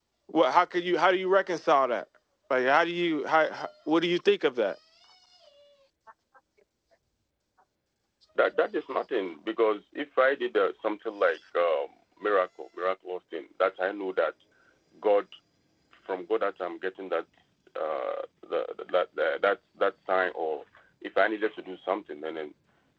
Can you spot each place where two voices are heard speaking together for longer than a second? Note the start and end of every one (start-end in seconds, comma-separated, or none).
none